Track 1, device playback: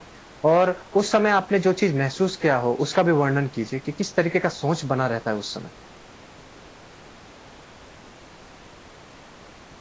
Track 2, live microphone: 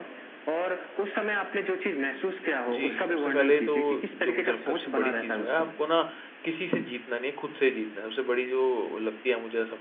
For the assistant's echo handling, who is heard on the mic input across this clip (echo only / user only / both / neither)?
both